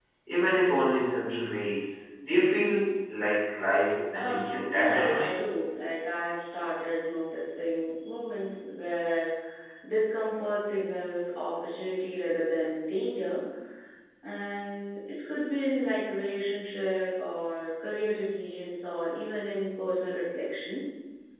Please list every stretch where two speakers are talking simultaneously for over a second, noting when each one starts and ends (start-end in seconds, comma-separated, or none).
4.1-5.4